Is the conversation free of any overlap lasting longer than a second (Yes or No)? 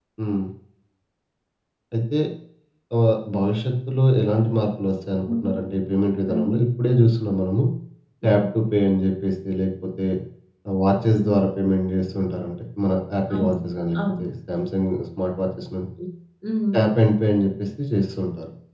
Yes